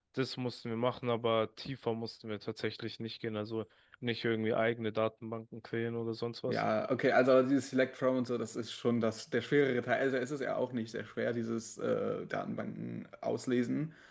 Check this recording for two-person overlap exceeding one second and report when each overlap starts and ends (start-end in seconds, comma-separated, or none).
none